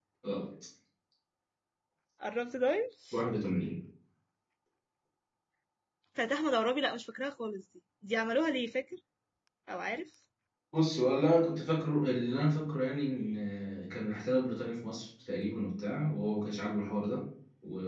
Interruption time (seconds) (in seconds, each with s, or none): none